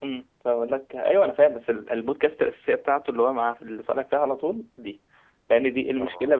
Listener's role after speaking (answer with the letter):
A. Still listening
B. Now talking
A